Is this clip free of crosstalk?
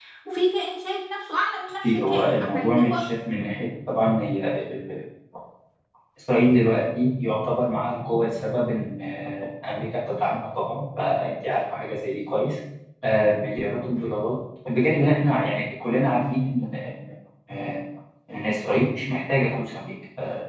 No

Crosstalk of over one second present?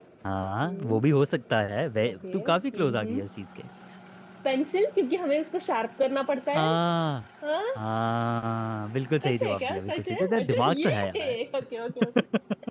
Yes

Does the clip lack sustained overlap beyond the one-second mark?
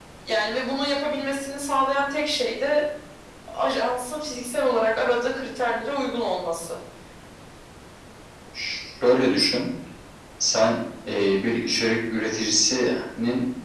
Yes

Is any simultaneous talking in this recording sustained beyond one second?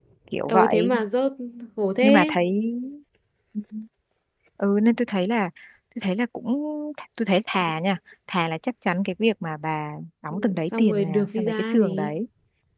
Yes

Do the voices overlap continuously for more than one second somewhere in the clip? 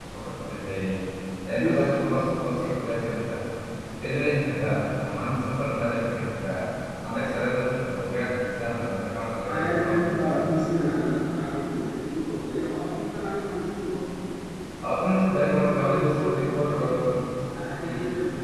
Yes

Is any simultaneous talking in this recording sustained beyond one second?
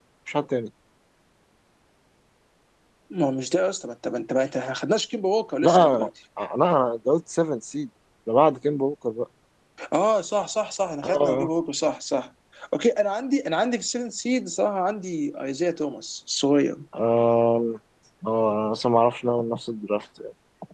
No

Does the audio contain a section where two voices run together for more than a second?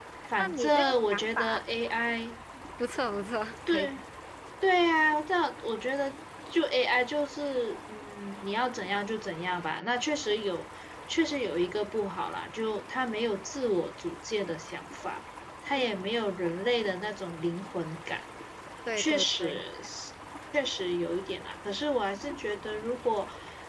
Yes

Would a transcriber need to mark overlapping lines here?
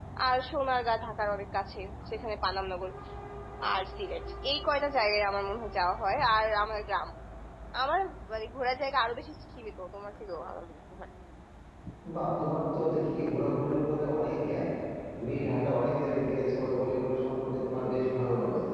No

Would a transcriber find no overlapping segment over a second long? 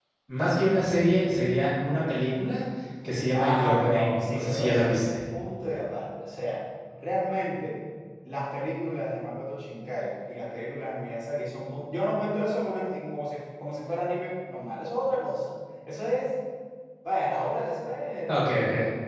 No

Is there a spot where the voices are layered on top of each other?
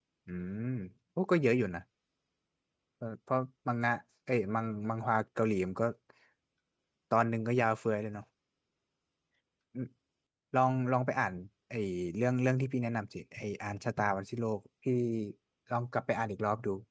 No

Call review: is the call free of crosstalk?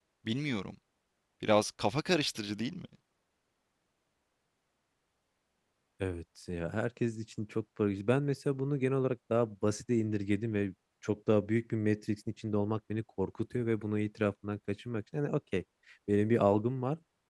Yes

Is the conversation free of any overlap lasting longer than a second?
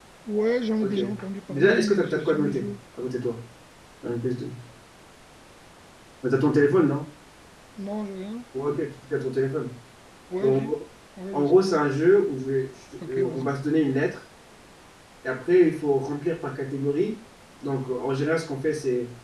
No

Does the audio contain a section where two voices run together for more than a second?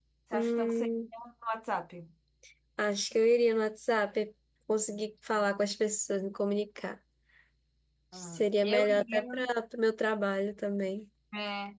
Yes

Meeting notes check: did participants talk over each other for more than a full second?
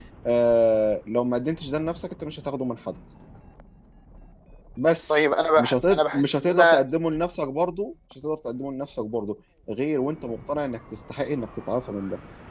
Yes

